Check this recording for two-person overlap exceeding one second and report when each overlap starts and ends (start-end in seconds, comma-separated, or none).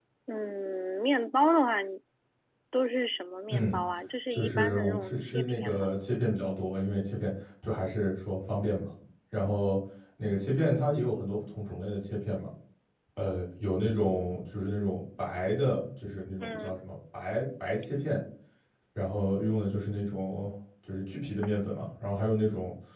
4.3-5.9